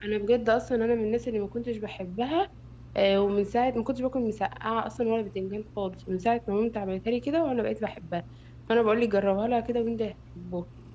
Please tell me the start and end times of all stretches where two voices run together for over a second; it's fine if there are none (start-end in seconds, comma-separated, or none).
none